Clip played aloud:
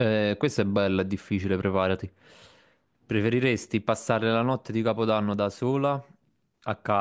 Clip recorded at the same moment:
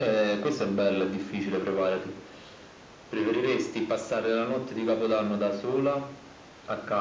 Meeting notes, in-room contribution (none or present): none